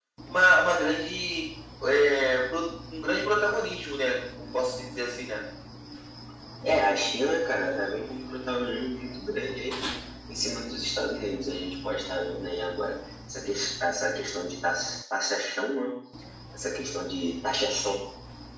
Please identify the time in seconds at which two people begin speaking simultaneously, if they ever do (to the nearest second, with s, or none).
none